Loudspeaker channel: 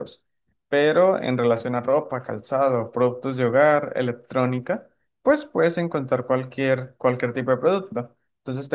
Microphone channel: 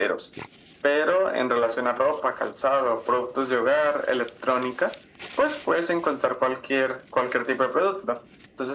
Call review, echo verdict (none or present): present